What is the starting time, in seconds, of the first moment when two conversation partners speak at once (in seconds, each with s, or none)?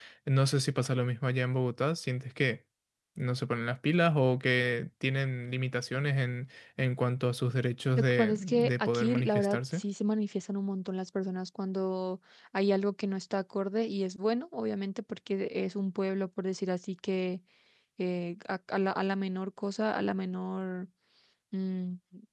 8.0 s